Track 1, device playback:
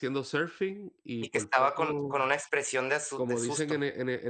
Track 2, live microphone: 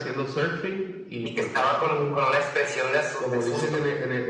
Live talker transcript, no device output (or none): none